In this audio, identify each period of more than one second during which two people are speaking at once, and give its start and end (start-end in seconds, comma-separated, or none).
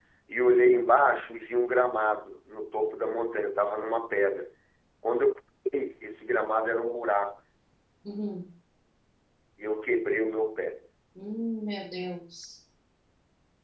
none